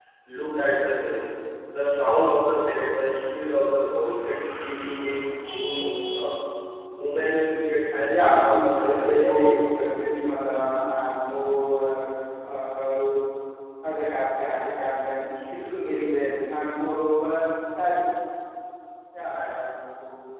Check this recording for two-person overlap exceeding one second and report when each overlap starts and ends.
8.1-9.9

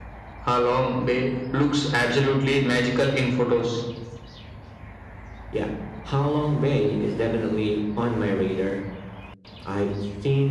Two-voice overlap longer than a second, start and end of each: none

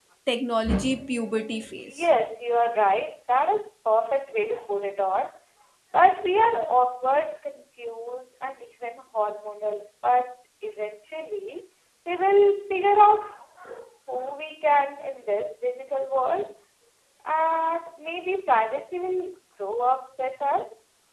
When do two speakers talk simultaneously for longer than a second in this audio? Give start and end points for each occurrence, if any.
0.7-2.1

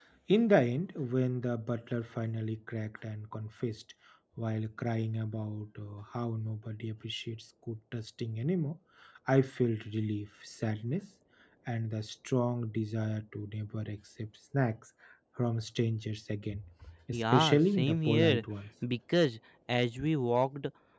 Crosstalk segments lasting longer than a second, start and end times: 17.1-18.4

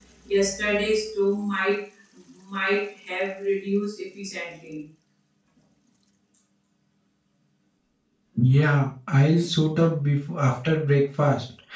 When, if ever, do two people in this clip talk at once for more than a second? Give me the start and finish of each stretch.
none

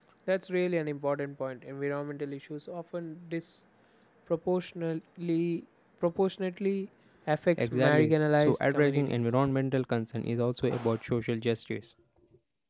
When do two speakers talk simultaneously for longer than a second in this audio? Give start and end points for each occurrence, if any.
7.6-9.2

